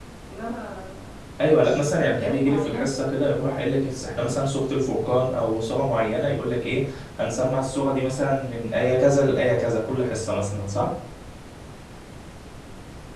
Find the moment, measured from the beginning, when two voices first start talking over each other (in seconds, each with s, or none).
1.6 s